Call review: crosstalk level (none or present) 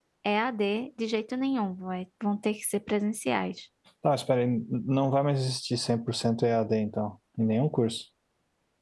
none